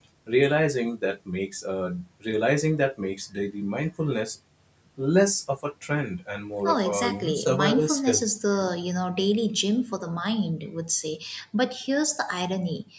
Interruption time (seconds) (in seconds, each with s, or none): 6.7 s